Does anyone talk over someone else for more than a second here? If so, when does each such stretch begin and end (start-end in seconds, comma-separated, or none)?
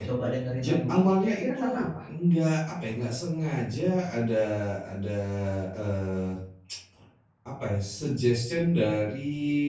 0.6-1.8